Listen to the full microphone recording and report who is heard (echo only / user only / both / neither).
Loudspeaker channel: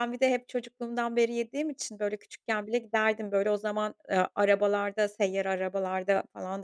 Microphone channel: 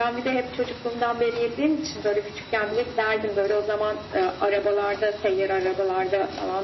echo only